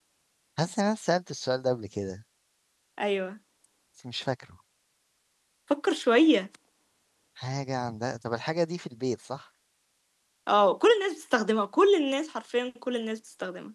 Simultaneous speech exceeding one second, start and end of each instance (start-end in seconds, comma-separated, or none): none